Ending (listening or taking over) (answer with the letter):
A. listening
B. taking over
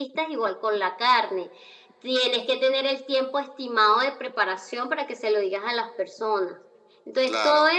A